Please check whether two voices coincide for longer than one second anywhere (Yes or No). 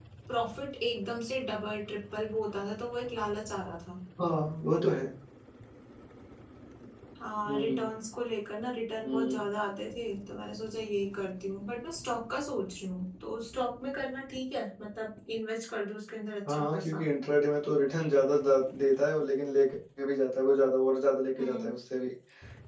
No